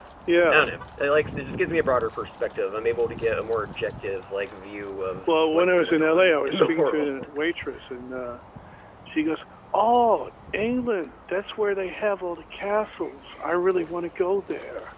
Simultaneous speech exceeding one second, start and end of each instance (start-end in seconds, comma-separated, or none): 5.3-7.1